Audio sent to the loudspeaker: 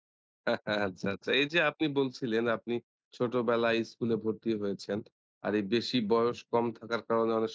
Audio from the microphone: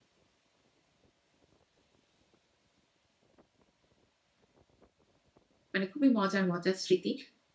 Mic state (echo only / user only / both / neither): user only